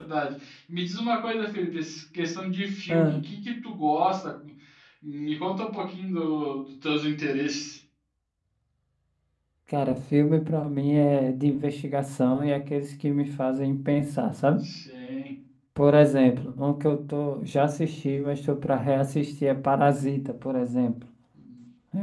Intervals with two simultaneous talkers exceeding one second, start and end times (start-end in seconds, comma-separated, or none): none